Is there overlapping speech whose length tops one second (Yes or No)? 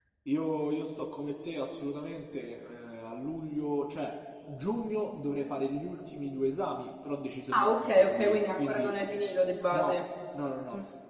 Yes